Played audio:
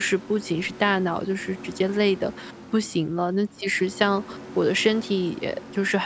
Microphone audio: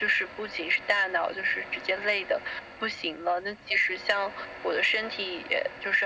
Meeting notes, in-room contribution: none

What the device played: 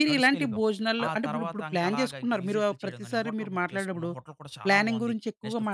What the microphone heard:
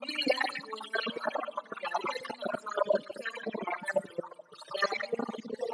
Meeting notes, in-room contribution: none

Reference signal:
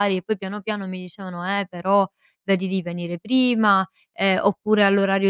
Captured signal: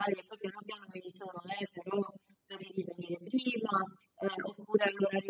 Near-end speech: none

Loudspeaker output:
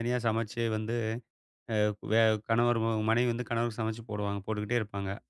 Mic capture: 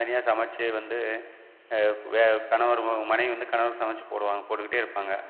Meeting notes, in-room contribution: none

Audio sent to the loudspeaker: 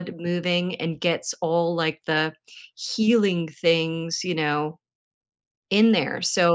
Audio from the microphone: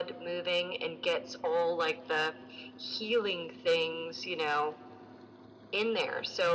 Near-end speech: none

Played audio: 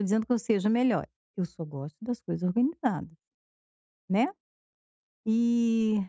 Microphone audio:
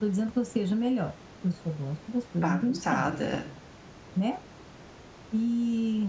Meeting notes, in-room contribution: present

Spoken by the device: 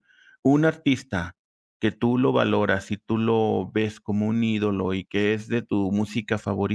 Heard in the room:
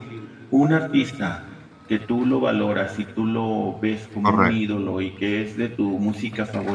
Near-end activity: present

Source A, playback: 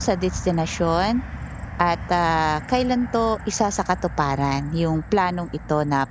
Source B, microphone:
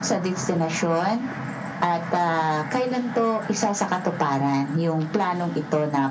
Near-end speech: none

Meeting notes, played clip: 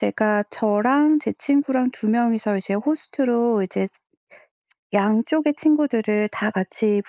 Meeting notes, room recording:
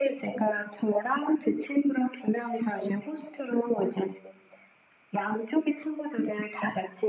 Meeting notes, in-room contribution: none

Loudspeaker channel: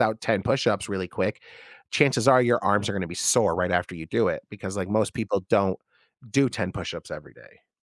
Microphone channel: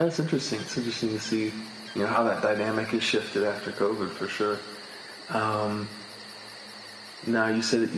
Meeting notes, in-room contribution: present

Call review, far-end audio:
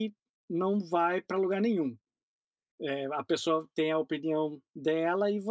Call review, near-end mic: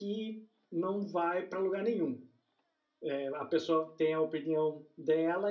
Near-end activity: none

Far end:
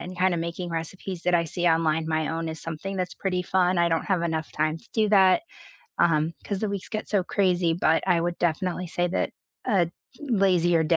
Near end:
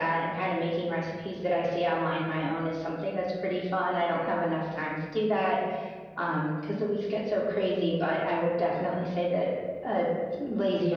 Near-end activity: none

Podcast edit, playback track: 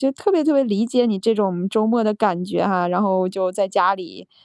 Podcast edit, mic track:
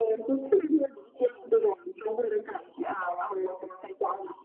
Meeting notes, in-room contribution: none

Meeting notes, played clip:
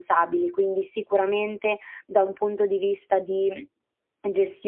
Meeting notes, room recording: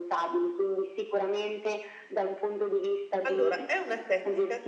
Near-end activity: present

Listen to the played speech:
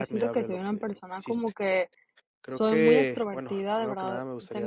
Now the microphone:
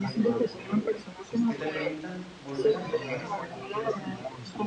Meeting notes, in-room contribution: present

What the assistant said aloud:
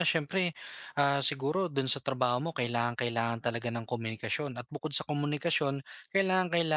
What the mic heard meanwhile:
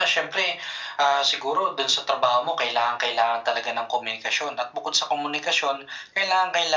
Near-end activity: none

